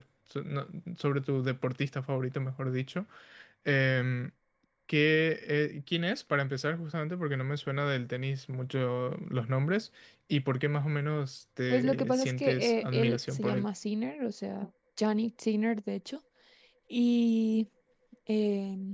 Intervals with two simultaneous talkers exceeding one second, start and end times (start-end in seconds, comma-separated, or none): 11.7-13.6